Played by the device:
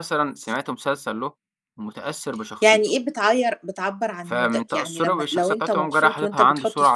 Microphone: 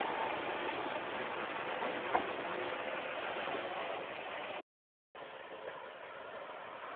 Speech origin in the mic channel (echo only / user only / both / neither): neither